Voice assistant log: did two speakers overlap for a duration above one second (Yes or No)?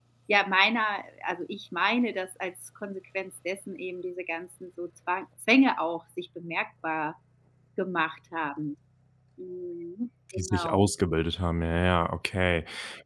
No